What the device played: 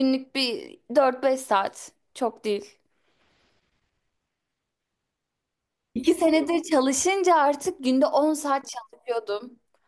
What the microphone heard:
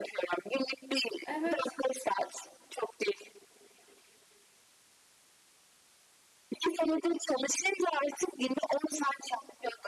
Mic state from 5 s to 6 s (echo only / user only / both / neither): neither